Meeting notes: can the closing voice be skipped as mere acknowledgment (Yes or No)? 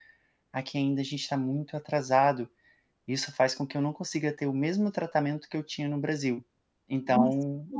No